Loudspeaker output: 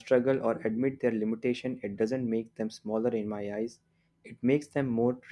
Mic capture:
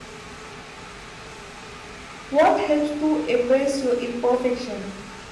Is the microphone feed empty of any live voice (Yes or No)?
No